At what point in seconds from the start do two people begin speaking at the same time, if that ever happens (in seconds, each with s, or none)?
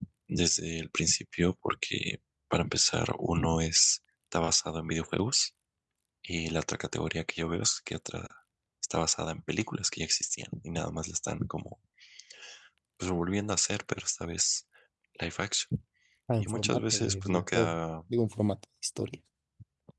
16.4 s